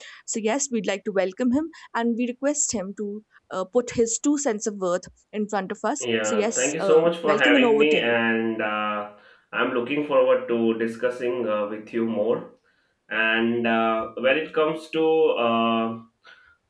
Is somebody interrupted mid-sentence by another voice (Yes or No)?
Yes